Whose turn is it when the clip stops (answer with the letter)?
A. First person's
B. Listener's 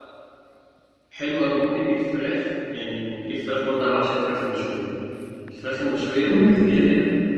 A